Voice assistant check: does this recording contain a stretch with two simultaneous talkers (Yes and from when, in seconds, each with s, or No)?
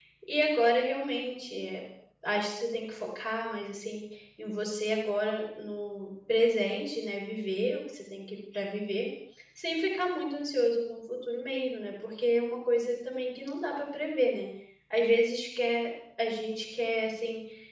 No